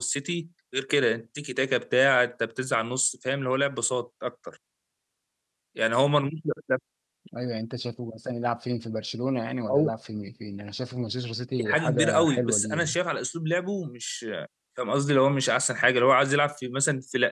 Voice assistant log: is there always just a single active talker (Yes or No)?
No